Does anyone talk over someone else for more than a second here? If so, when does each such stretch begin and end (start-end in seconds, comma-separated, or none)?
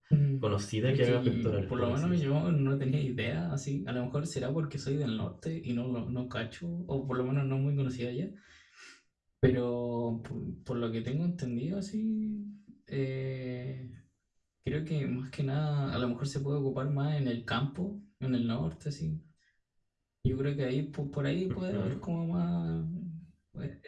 0.8-2.2